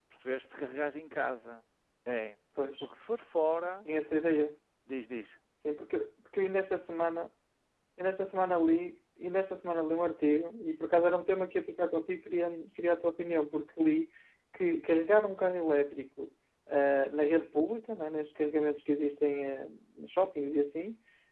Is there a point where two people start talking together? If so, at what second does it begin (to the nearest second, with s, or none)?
none